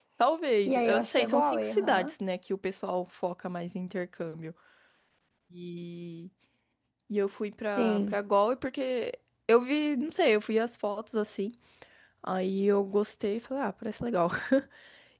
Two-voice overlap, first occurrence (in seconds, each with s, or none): 0.7 s